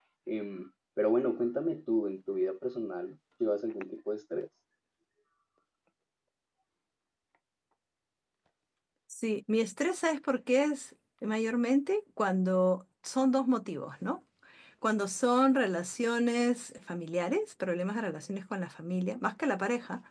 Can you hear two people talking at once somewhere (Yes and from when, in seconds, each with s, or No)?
No